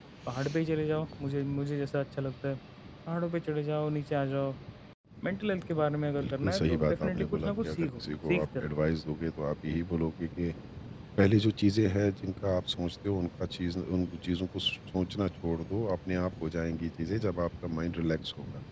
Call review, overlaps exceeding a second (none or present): present